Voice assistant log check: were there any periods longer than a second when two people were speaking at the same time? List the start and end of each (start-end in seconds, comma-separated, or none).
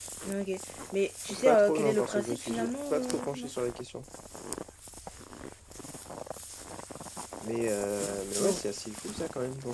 1.4-3.5